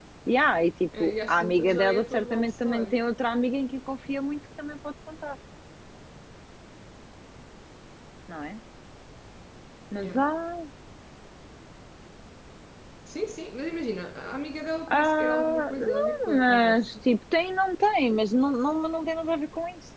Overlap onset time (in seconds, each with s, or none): 0.9 s